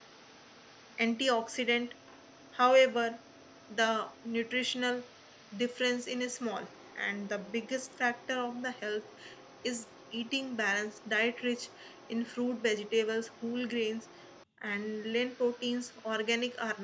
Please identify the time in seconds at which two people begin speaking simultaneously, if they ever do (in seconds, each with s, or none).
none